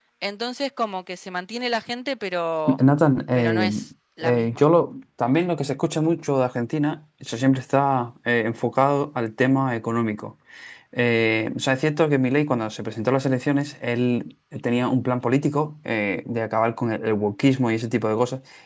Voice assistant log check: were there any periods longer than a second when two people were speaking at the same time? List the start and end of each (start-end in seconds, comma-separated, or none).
none